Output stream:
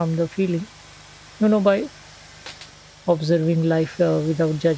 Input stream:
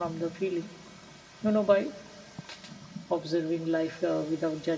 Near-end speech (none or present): none